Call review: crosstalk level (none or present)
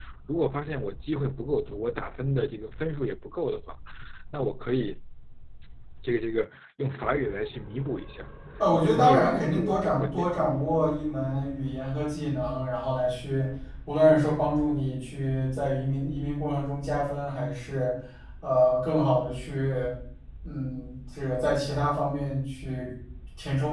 present